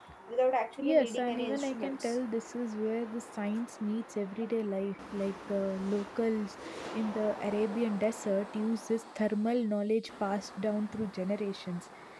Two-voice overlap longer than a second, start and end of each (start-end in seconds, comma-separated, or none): 0.8-2.2